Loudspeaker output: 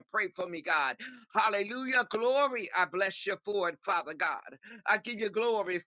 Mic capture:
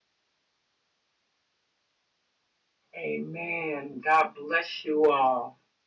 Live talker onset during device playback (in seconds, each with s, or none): 3.0 s